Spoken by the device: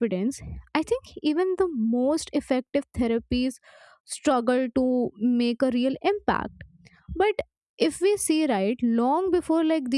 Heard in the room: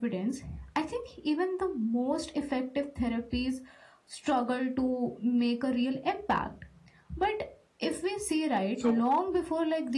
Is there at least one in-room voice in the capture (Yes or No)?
Yes